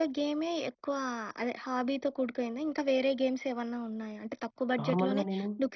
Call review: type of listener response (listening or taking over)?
listening